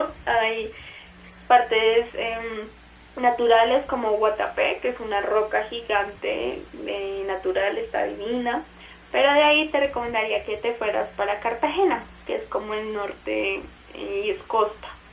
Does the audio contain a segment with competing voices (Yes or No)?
No